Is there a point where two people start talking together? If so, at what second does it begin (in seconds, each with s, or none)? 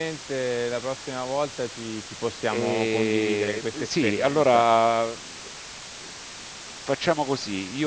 2.5 s